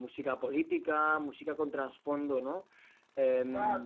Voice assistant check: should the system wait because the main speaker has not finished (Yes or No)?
No